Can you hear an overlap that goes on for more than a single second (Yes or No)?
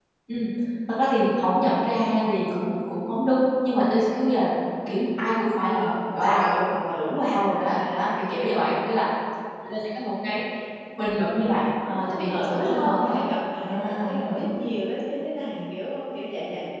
Yes